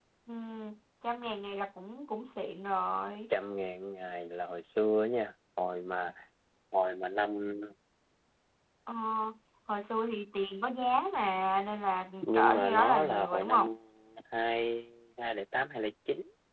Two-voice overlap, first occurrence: 12.2 s

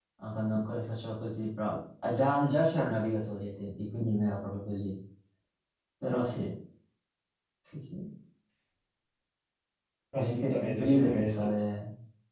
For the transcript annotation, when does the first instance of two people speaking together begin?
10.1 s

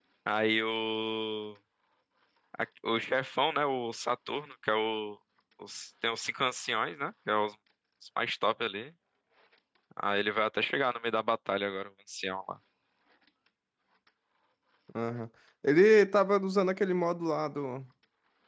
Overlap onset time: none

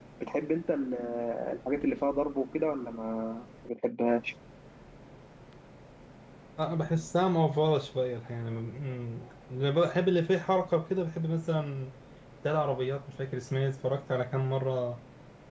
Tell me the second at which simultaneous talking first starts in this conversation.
none

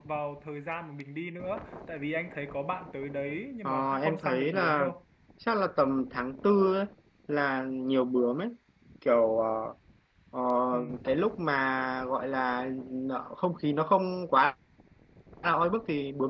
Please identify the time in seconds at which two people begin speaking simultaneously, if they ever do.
3.6 s

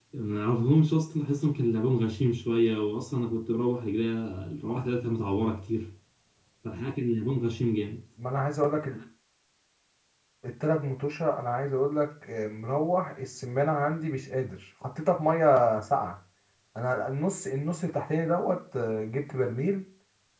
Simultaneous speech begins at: none

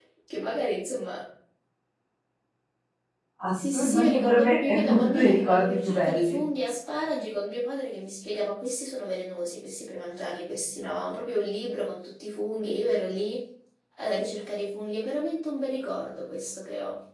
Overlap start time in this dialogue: 3.5 s

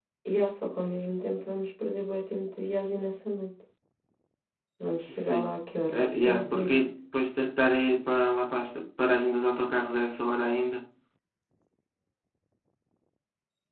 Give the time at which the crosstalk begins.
5.1 s

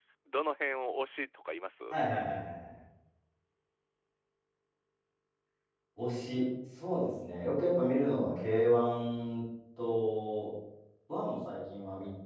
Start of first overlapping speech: none

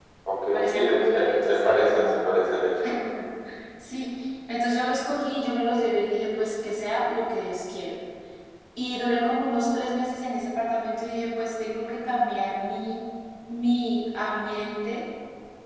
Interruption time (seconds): 0.5 s

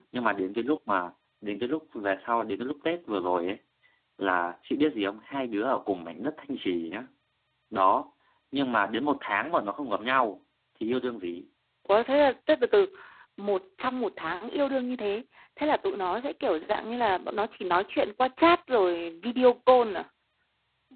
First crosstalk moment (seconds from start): none

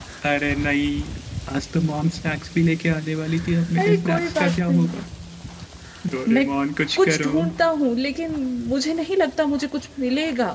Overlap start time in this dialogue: 3.8 s

